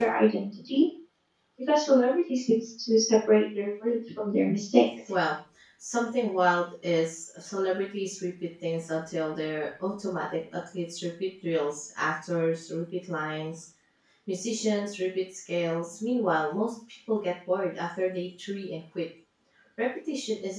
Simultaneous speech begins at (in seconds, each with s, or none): none